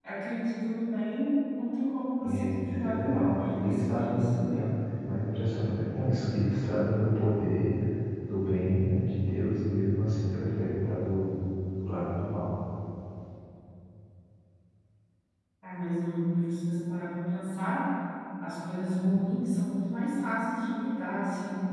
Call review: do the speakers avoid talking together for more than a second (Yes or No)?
No